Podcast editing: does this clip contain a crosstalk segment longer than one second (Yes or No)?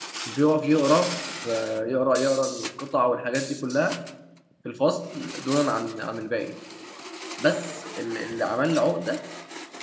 No